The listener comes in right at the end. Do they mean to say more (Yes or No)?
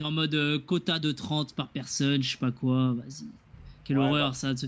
Yes